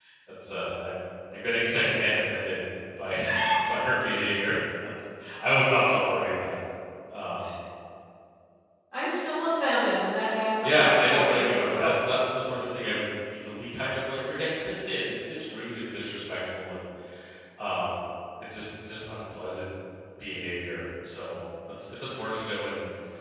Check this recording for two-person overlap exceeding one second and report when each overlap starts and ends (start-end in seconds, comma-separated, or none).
10.6-12.0